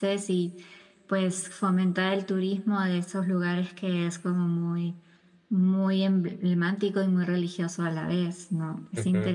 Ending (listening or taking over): taking over